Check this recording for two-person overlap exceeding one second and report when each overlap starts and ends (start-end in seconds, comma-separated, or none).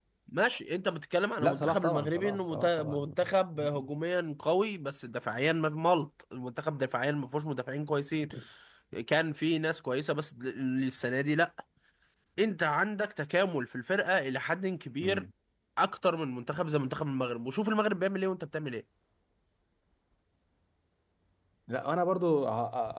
1.4-3.1